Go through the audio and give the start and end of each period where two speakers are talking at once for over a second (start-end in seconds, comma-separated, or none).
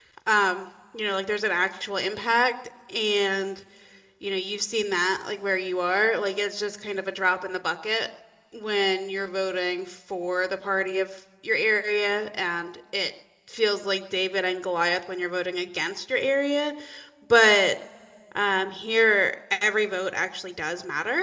none